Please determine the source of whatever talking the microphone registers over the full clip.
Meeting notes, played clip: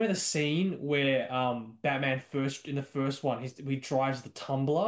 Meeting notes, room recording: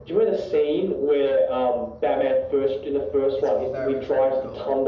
both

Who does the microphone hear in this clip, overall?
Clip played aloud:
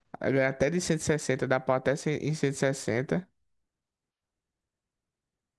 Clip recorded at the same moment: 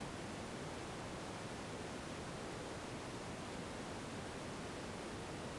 neither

